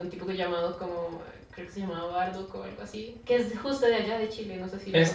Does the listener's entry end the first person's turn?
Yes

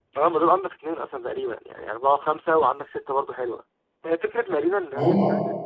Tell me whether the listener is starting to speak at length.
No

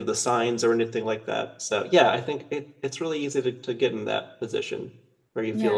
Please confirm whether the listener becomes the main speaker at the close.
No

